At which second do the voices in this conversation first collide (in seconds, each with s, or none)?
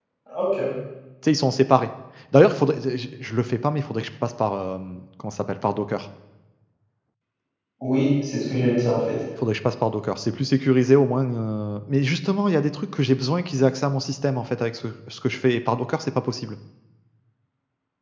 none